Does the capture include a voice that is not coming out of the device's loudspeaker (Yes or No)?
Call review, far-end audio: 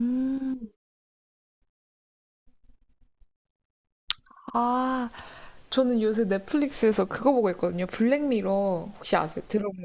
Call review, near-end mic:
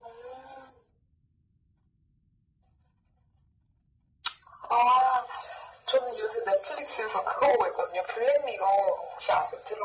No